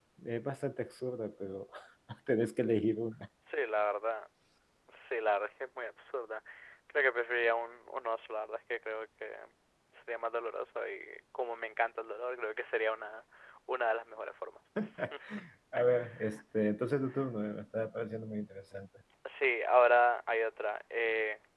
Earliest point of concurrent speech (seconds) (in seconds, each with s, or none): none